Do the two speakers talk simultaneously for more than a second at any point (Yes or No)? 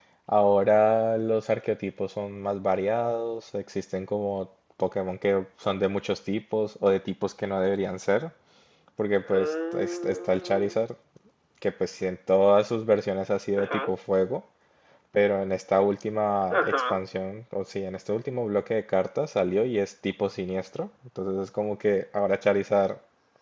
Yes